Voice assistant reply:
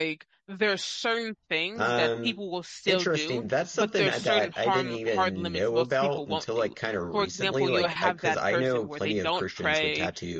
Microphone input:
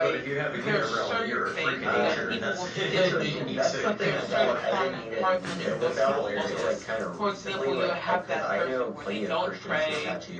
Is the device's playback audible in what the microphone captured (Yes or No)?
Yes